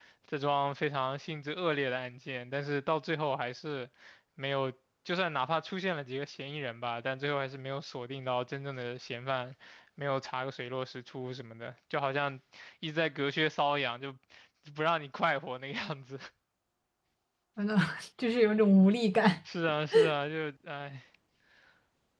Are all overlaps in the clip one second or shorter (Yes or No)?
Yes